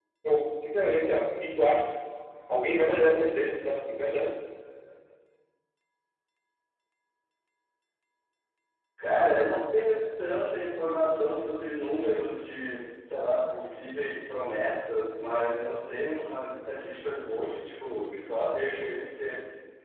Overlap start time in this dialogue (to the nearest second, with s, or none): none